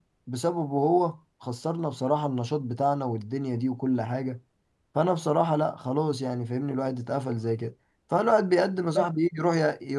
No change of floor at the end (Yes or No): Yes